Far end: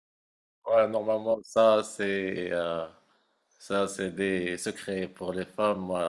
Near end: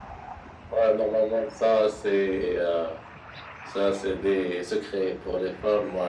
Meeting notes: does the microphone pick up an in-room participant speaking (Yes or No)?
No